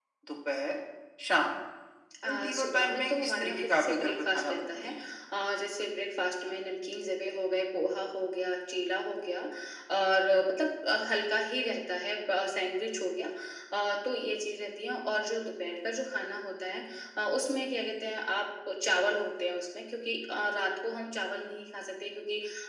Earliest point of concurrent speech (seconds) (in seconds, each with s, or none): 2.3 s